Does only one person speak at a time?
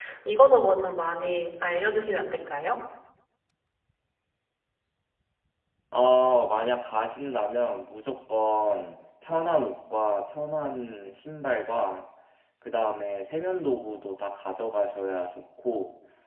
Yes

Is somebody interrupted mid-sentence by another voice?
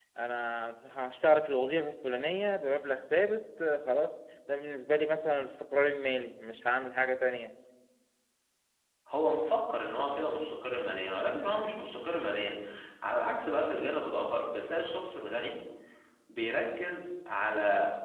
No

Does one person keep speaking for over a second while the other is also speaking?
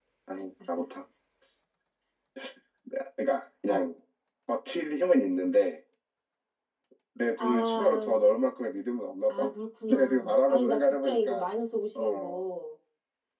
Yes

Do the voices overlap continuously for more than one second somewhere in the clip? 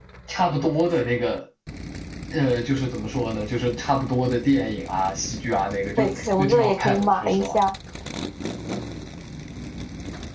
Yes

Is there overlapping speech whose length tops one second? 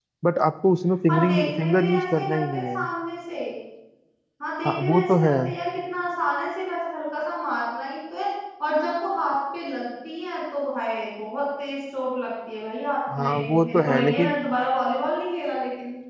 Yes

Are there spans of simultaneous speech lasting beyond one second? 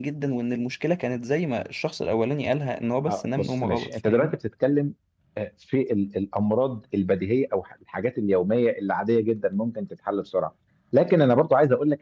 Yes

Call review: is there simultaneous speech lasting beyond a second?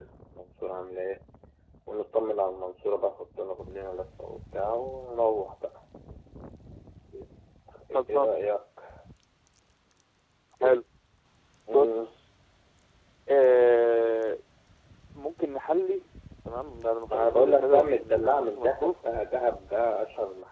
Yes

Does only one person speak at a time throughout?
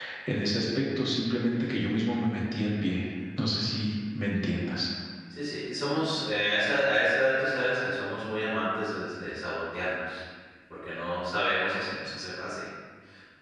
Yes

